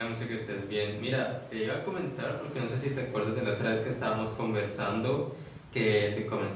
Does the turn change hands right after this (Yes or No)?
No